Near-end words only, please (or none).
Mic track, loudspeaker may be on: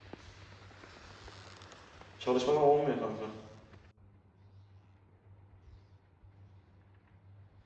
çalışmadan olmuyor kanka.